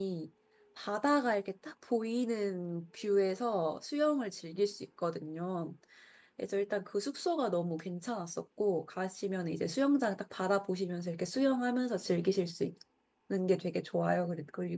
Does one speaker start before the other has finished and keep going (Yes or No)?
No